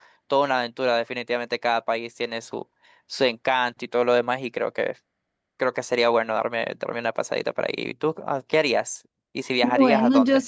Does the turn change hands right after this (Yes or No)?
Yes